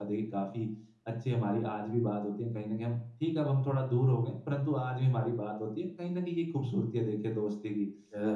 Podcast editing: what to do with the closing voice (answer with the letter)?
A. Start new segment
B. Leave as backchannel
B